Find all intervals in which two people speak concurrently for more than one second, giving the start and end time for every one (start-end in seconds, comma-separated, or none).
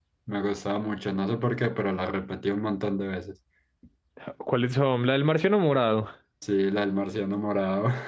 none